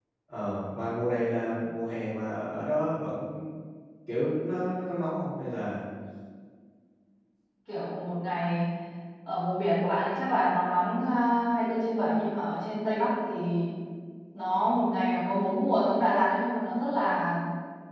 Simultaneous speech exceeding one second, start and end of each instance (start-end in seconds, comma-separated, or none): none